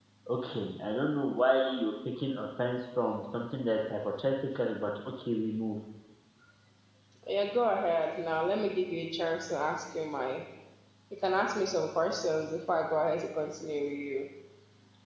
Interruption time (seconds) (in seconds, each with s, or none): none